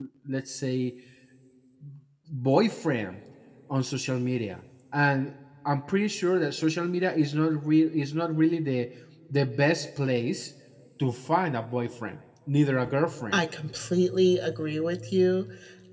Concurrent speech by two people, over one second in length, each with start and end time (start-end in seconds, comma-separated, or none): none